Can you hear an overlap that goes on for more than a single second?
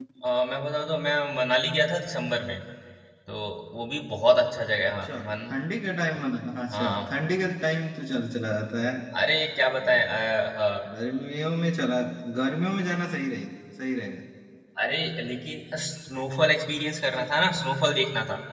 No

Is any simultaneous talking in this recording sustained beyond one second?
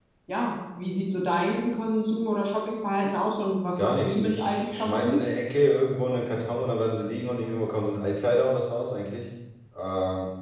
Yes, from 3.8 s

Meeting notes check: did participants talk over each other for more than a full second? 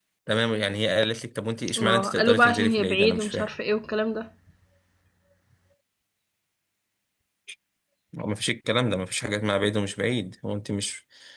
Yes, from 1.8 s

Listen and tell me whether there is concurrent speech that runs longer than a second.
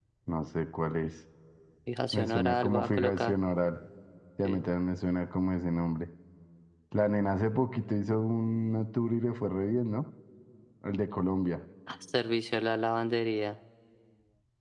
Yes, from 2.1 s

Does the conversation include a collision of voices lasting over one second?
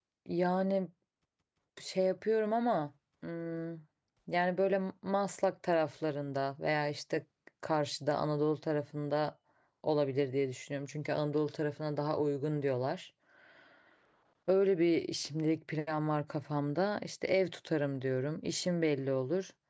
No

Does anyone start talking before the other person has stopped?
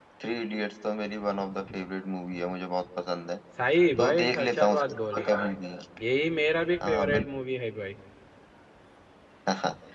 Yes, from 4.0 s

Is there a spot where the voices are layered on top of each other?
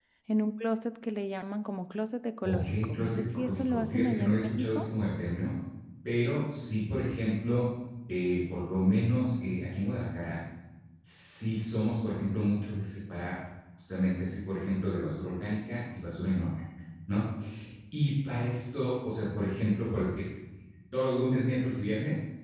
Yes, from 2.4 s

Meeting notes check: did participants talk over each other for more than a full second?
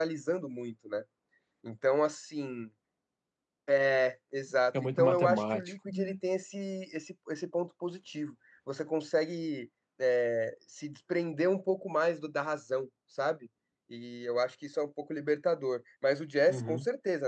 Yes, from 4.8 s

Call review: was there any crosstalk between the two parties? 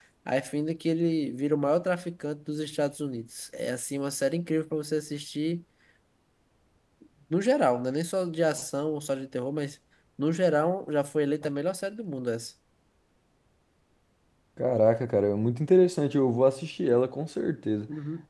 No

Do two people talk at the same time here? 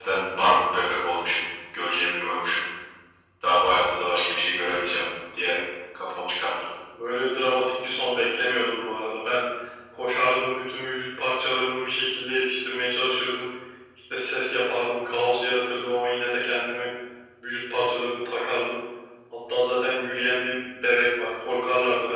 No

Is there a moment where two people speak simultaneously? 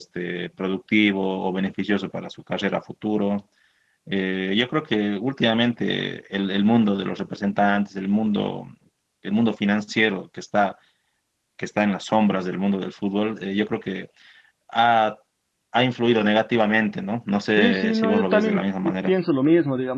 Yes, from 17.6 s

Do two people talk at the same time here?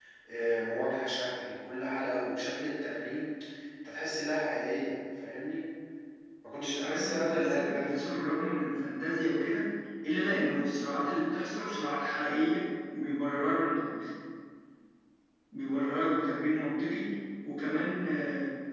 Yes, from 6.6 s

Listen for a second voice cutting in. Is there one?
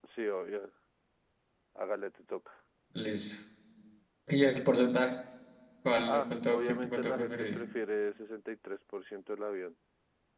Yes, from 6.1 s

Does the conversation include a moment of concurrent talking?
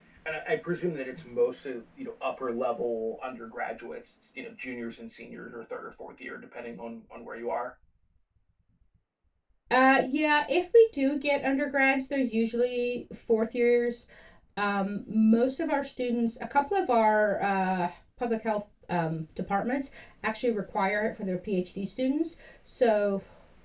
No

